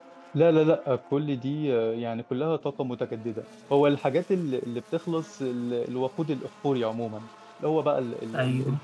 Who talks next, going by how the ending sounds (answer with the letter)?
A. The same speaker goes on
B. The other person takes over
A